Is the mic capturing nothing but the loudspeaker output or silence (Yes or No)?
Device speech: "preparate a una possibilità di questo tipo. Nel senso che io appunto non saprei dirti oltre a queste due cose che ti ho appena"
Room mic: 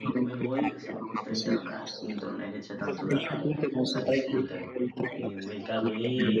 No